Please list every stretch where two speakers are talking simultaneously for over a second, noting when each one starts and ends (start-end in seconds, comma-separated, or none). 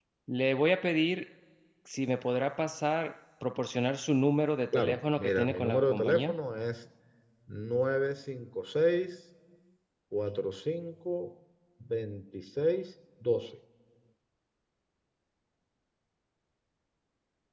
4.7-6.3